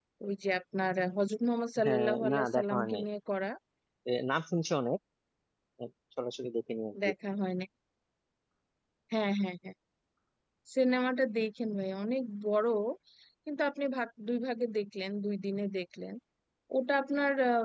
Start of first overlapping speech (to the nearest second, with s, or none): 2 s